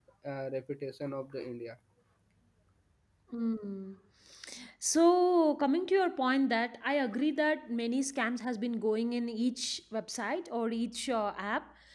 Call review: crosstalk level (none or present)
none